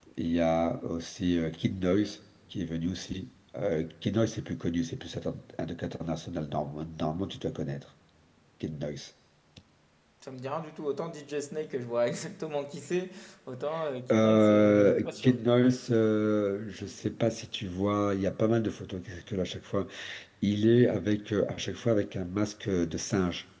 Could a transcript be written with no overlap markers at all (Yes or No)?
No